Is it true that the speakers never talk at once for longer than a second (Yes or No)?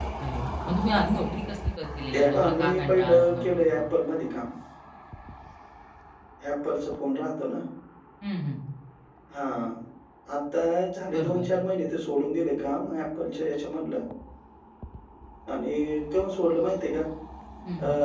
No